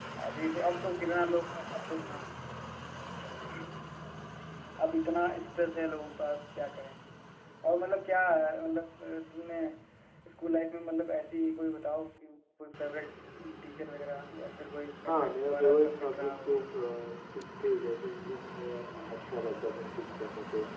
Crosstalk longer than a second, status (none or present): present